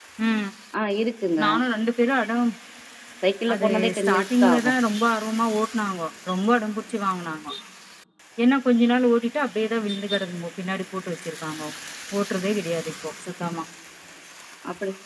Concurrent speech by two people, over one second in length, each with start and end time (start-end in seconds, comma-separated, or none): 3.5-4.7